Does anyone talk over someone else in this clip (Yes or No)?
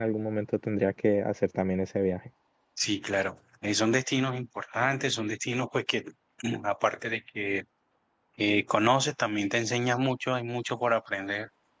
No